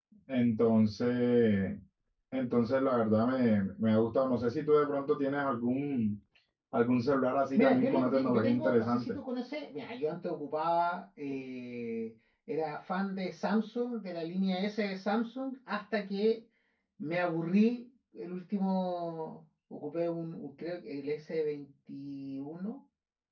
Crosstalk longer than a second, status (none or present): present